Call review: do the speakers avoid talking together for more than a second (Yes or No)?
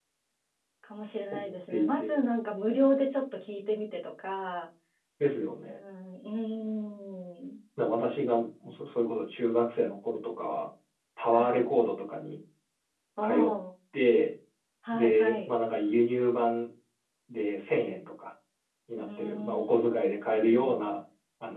No